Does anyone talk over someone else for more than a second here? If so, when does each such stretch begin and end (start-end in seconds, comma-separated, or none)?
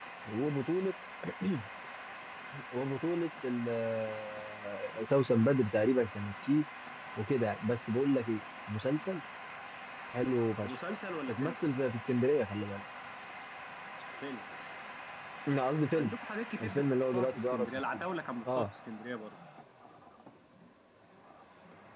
16.6-18.0